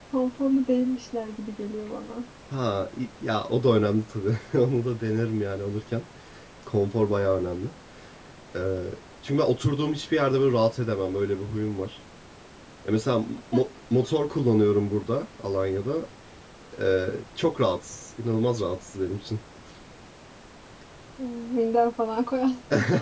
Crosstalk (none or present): none